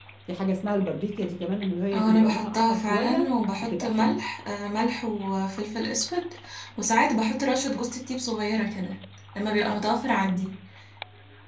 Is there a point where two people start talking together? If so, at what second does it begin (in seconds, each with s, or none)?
1.9 s